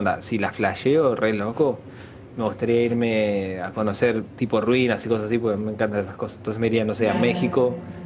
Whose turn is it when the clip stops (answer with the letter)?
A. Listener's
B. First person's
B